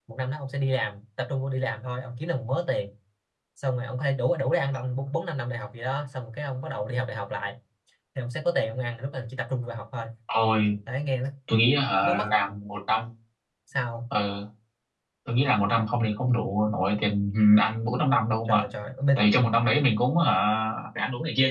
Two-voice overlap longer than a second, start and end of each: none

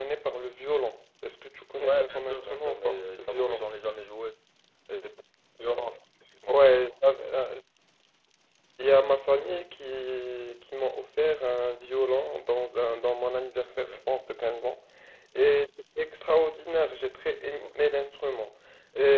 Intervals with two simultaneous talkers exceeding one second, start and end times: 1.7-3.6

